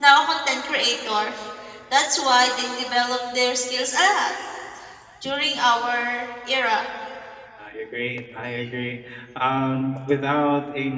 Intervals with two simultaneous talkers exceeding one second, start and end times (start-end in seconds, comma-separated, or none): none